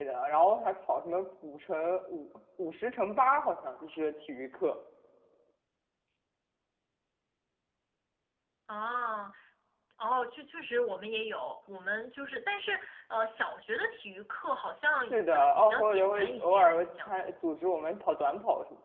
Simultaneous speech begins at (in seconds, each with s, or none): 15.1 s